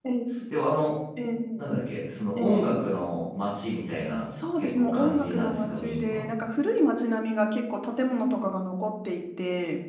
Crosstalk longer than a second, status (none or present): present